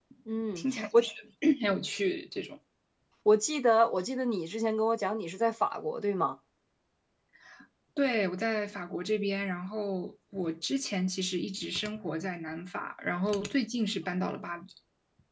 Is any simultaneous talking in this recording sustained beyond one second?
No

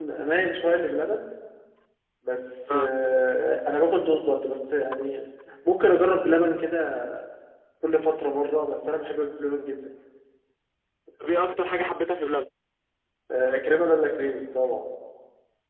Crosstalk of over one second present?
No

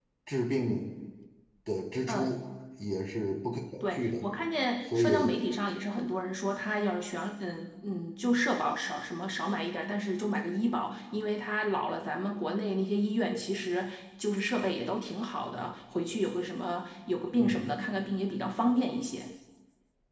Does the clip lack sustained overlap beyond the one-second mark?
Yes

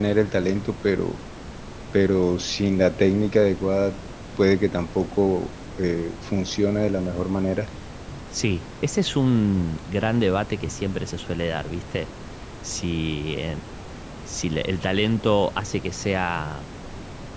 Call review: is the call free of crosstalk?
Yes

